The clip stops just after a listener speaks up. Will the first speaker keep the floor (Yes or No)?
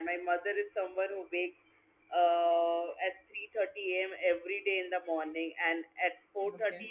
Yes